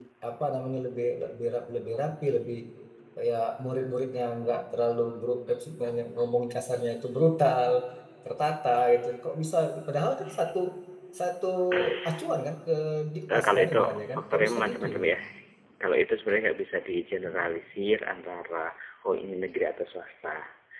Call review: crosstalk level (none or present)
present